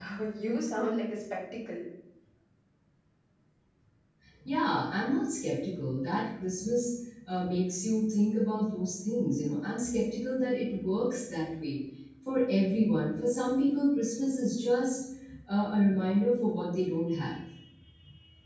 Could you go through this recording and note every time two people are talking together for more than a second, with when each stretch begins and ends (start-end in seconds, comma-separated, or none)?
none